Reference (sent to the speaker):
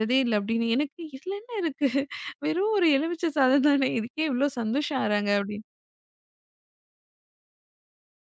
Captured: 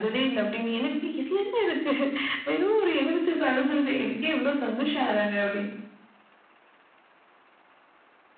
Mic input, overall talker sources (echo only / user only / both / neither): echo only